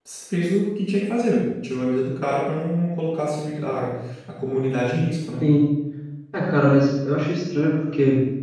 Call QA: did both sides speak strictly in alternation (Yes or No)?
Yes